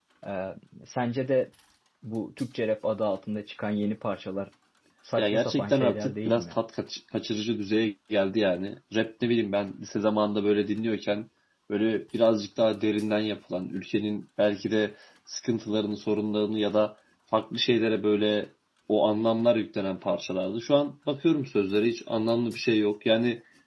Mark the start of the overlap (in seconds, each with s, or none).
5.2 s